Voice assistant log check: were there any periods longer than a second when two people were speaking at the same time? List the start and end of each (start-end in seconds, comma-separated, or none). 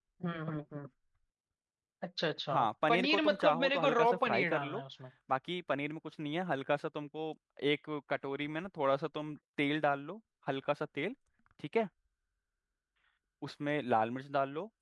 2.5-4.8